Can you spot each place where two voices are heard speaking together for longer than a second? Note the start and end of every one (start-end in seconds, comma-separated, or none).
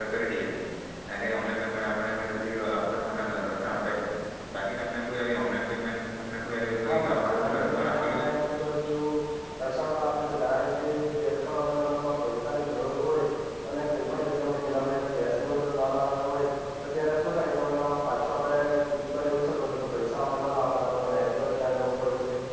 6.8-8.3